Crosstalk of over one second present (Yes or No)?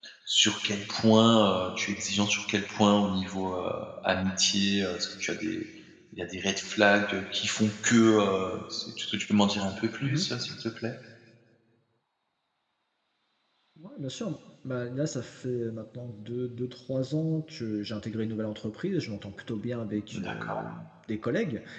No